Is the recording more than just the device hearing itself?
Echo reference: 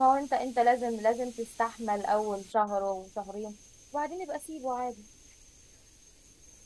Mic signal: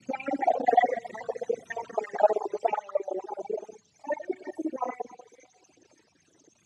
No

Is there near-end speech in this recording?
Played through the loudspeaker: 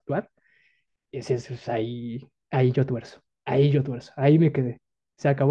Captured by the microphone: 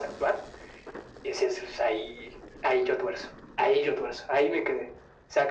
No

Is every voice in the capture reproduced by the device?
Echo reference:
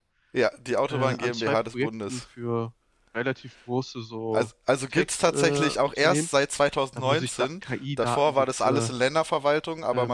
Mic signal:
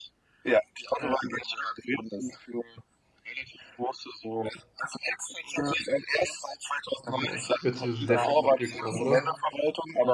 No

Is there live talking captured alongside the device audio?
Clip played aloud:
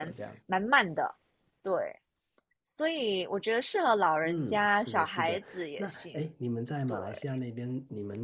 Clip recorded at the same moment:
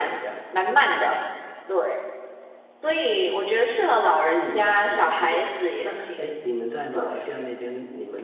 No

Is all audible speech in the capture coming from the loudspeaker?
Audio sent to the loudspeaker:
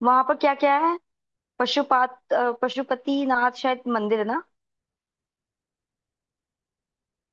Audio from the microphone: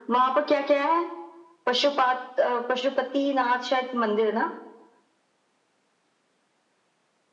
Yes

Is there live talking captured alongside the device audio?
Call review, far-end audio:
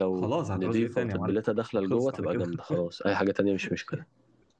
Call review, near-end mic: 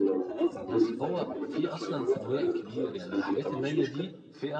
Yes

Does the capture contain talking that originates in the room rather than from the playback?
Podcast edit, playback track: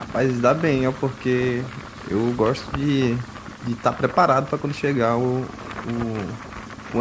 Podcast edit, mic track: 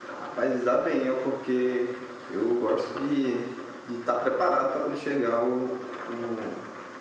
No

